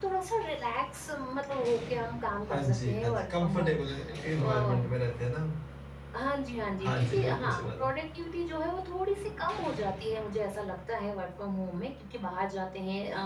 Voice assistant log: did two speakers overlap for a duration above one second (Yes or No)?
Yes